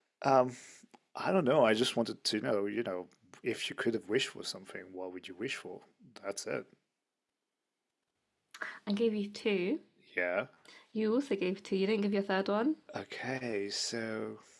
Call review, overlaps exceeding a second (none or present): none